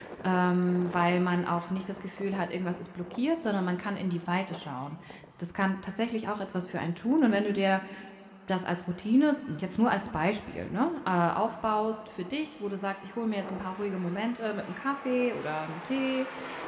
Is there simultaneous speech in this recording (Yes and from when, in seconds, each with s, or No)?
No